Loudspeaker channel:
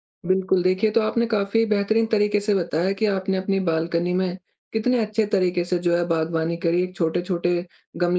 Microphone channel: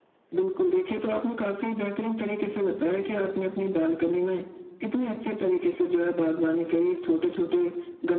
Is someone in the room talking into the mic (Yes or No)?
No